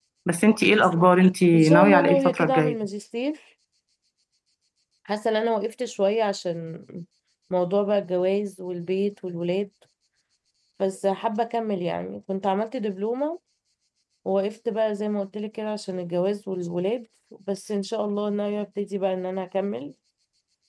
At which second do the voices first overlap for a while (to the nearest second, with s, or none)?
2 s